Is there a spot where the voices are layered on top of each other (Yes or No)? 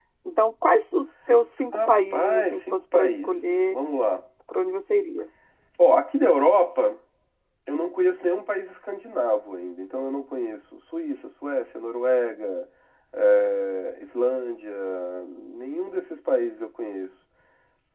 Yes